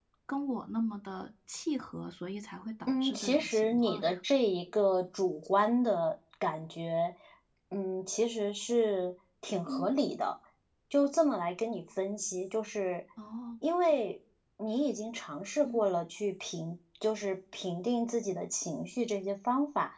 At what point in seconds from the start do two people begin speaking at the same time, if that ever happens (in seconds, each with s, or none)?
2.9 s